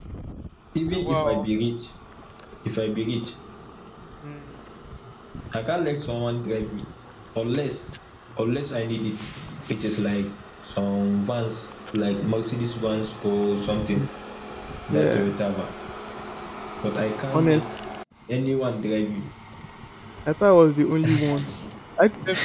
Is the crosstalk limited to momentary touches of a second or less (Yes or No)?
Yes